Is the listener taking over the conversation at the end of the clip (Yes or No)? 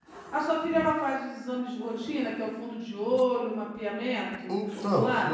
Yes